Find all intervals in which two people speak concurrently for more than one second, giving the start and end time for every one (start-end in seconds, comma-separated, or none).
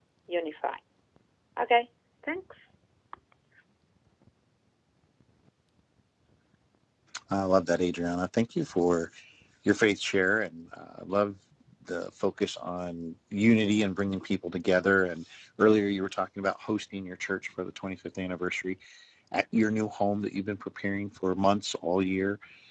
none